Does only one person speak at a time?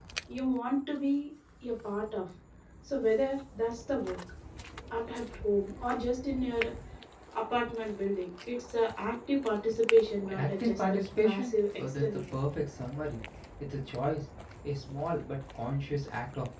No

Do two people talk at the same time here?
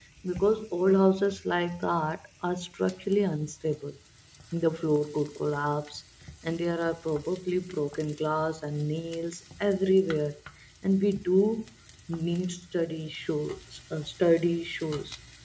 No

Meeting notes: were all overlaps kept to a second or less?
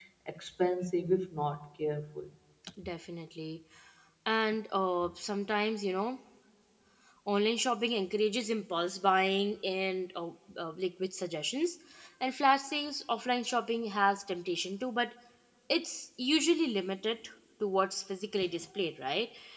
Yes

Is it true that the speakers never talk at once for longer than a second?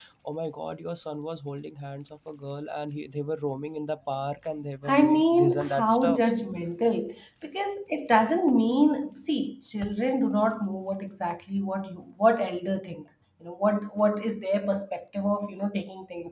No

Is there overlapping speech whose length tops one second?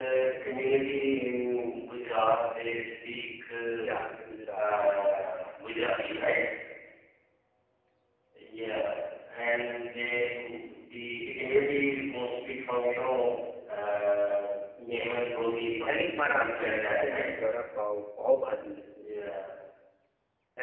Yes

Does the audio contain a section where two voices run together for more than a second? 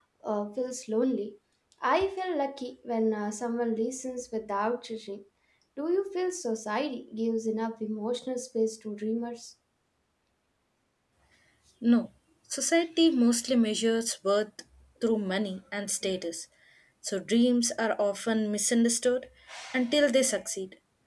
No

